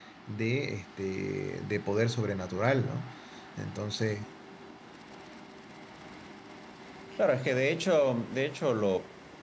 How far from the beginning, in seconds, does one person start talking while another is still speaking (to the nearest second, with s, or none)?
none